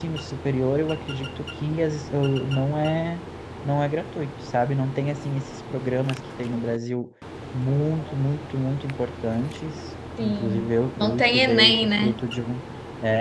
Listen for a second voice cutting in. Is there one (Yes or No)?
Yes